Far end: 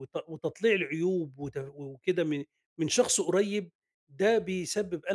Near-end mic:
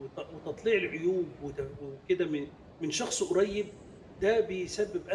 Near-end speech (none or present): none